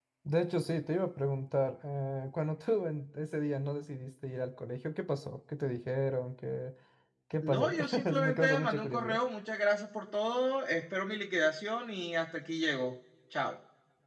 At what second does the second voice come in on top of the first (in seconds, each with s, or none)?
7.4 s